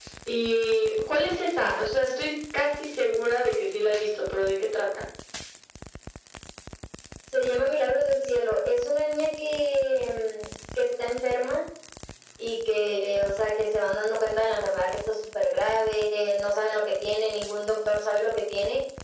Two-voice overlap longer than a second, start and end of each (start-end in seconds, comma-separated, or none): none